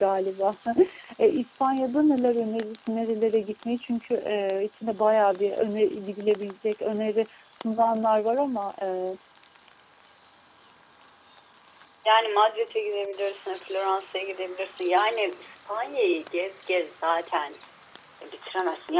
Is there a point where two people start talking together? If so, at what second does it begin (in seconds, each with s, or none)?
none